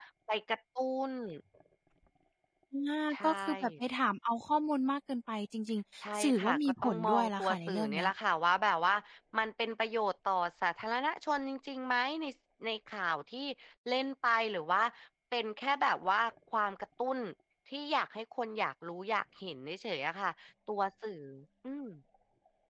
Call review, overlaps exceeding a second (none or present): present